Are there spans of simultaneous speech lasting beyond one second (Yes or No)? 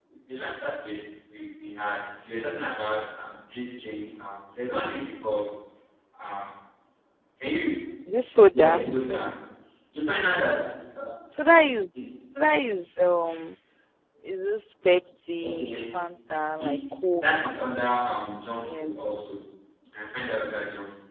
No